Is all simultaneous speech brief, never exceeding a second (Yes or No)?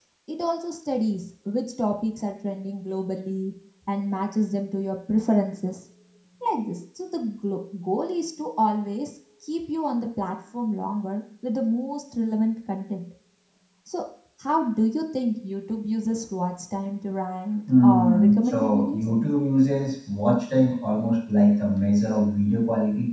No